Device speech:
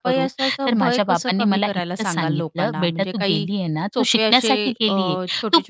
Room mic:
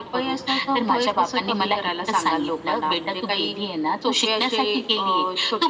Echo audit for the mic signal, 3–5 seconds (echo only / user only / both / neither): echo only